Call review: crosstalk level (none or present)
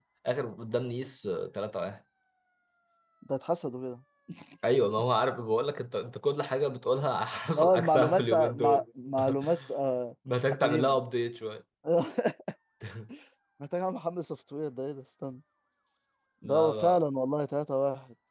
present